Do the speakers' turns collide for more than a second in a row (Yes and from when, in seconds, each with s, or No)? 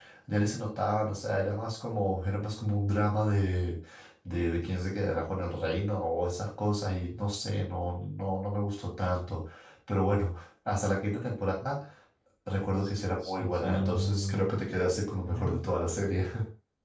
Yes, from 13.2 s